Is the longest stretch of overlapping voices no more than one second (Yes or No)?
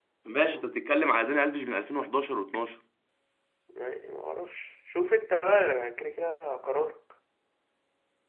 Yes